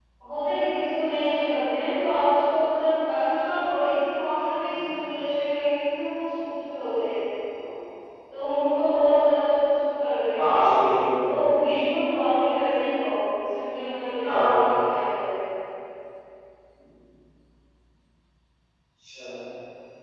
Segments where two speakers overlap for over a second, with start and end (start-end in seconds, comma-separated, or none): none